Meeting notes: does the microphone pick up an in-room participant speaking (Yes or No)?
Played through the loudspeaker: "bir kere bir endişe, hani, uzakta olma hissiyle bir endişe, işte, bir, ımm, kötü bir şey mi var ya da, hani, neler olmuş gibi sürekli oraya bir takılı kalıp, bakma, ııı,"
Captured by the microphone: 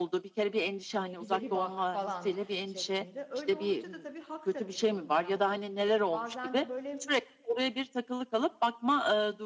Yes